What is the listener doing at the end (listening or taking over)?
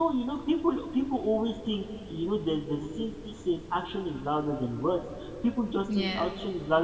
listening